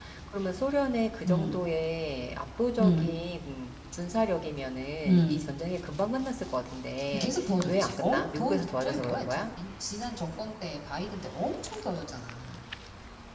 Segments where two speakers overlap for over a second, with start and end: 7.7-9.4

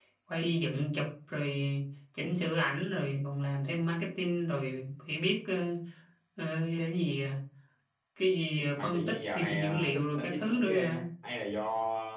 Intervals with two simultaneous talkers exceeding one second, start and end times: 8.8-11.1

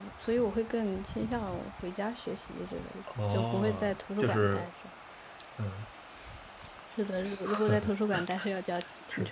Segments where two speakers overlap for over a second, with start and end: 3.3-4.7

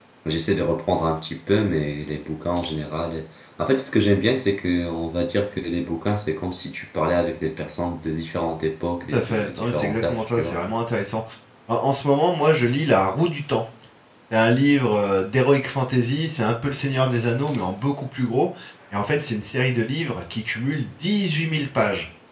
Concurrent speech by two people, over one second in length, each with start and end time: 9.1-10.6

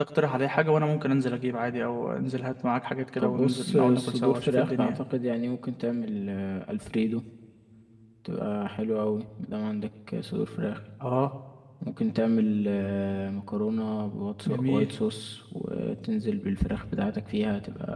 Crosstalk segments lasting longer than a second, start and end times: 3.2-5.0

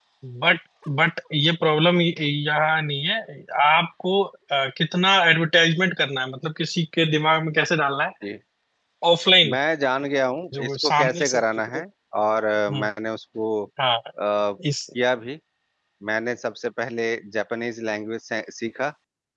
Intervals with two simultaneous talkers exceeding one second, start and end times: 10.6-11.8

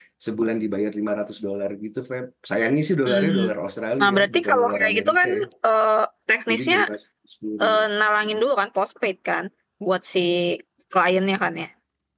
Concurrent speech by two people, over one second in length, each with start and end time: 4.0-5.3

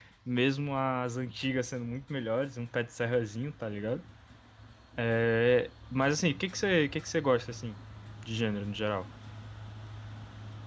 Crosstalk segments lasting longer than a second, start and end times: none

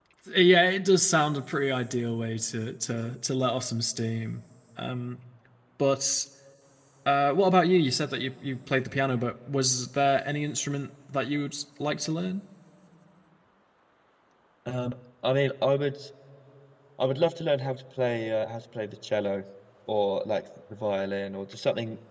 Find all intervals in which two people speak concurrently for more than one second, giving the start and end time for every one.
none

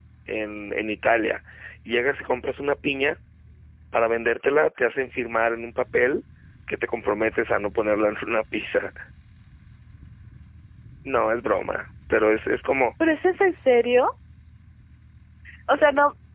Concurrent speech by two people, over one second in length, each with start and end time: none

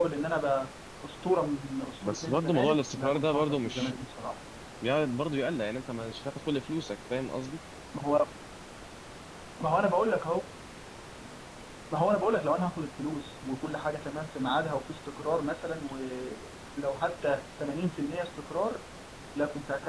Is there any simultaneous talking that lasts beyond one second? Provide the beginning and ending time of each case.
2.0-3.9

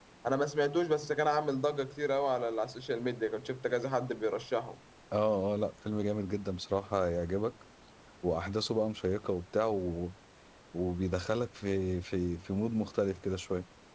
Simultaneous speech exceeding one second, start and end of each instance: none

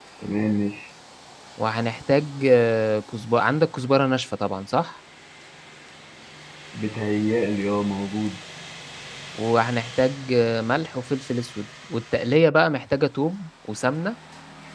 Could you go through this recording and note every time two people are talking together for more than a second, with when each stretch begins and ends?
none

